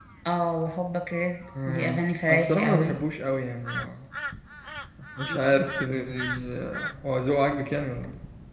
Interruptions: present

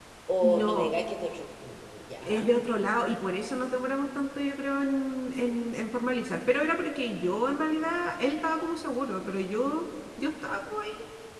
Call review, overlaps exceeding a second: none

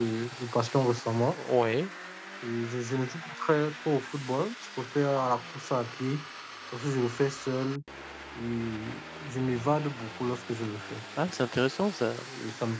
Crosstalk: none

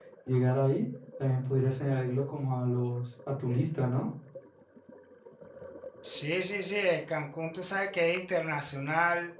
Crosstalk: none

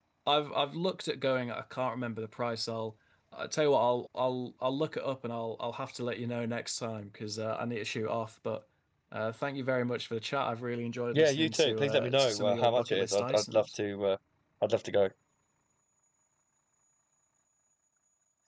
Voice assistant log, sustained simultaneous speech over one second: present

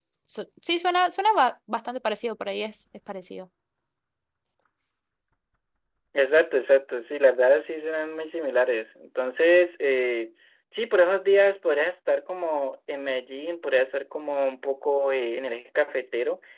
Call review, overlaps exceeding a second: none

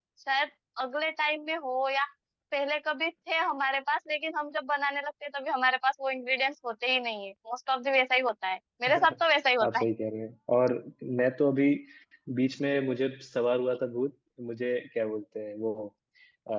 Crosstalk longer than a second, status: none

